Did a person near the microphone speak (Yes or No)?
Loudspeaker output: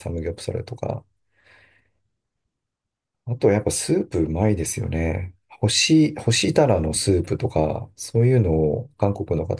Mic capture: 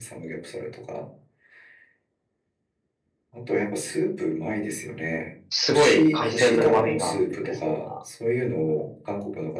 Yes